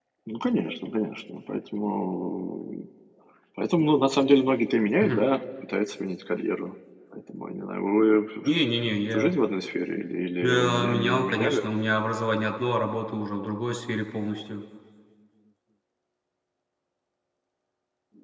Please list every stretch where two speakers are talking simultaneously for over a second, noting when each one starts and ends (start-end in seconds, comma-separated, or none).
10.4-11.7